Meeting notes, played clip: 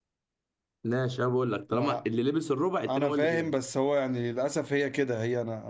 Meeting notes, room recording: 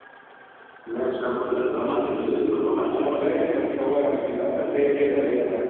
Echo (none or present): present